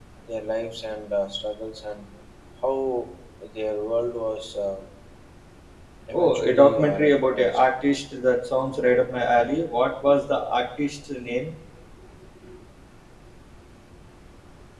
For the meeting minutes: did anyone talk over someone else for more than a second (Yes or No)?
Yes